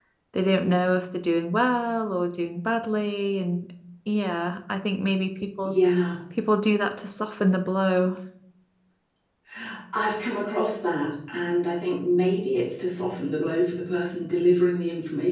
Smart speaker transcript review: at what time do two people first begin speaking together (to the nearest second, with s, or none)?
none